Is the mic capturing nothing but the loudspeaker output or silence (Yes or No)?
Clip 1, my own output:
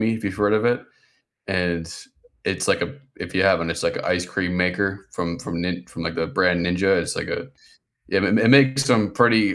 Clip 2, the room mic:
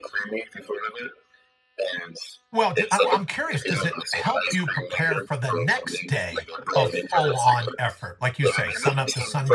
No